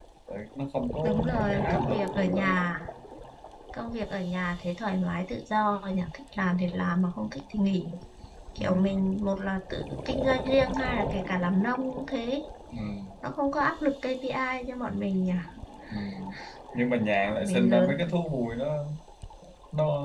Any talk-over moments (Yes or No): Yes